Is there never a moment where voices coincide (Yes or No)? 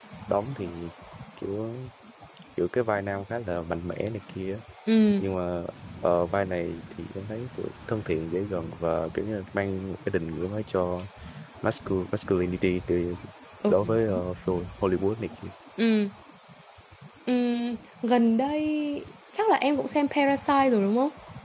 Yes